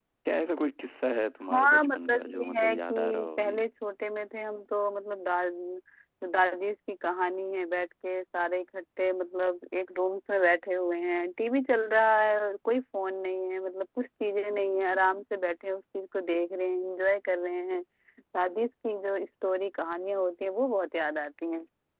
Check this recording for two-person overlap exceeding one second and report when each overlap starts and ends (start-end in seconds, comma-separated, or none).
1.4-3.6